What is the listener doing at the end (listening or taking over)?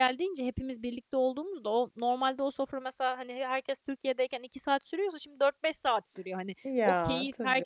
listening